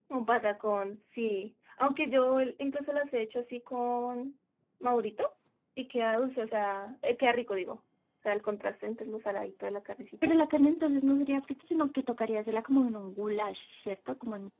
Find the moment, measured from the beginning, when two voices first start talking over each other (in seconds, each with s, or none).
none